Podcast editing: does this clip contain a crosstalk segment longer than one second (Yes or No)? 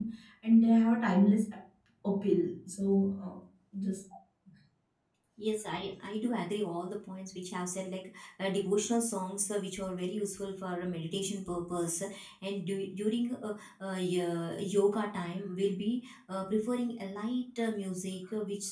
No